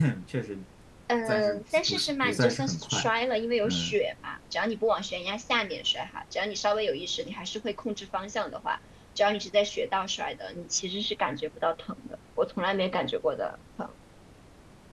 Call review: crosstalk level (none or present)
present